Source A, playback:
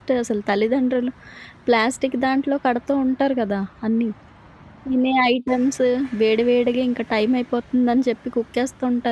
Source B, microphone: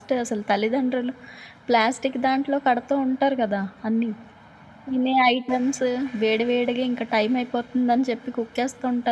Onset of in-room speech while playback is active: none

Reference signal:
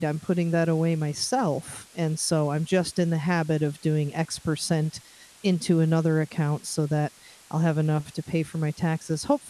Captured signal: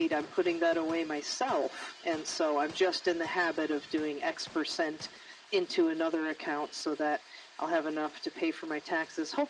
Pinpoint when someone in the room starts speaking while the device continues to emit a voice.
none

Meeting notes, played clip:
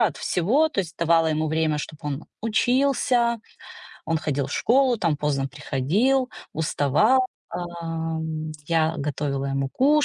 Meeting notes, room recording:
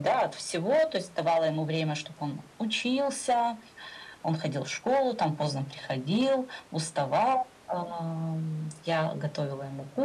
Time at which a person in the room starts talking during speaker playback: none

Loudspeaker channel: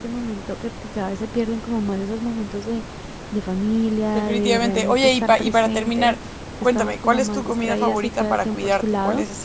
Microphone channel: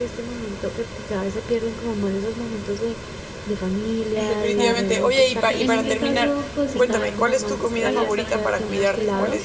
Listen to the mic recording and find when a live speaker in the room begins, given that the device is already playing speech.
4.1 s

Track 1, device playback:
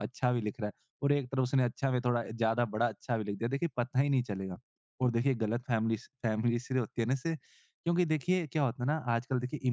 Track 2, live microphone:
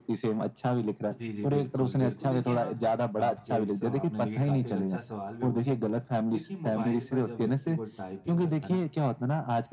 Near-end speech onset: 1.1 s

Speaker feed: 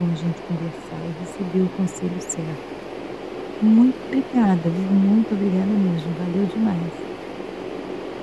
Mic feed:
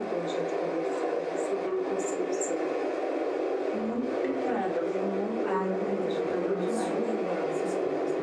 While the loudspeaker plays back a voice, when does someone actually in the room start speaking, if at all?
5.4 s

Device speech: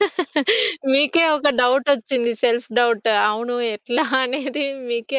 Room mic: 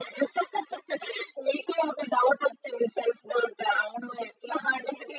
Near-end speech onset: none

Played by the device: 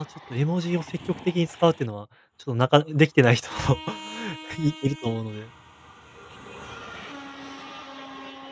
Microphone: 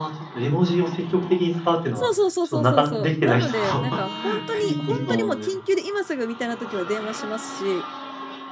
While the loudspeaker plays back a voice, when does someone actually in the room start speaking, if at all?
1.9 s

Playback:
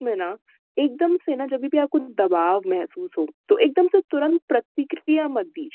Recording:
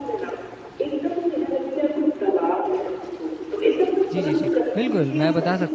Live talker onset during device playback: 4.1 s

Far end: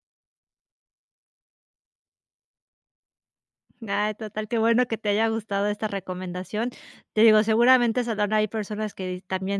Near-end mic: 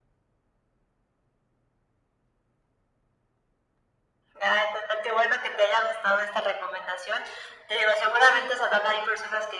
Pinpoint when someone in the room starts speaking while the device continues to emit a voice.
none

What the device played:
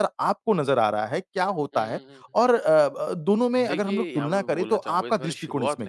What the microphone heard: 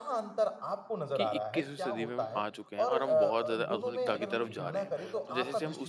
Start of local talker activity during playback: 1.2 s

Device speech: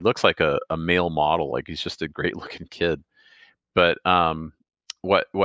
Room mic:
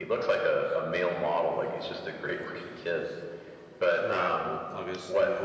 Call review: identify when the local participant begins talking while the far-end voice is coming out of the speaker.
4.0 s

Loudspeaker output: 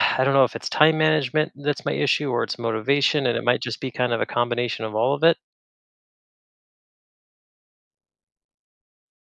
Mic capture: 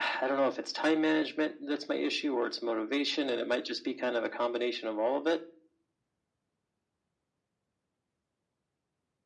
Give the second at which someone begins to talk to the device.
none

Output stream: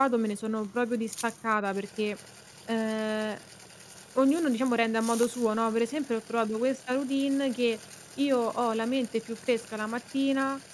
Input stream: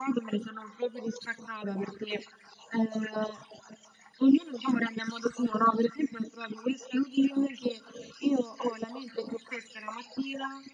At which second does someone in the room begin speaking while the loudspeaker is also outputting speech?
none

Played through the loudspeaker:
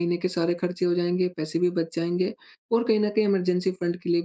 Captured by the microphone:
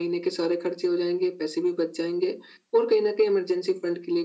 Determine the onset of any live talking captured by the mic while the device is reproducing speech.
none

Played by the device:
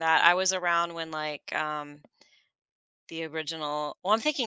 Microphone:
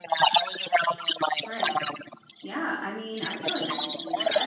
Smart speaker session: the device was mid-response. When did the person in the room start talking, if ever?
1.4 s

